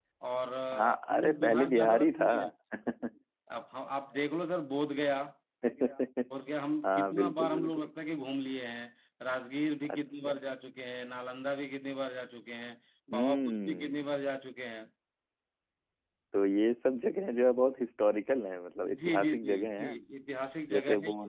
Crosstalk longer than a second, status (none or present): present